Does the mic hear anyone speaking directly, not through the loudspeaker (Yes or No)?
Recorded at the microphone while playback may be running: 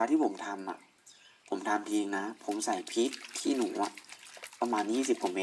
No